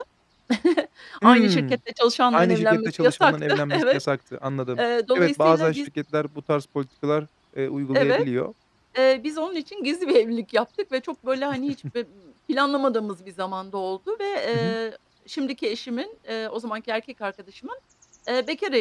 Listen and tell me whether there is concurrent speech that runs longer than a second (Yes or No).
Yes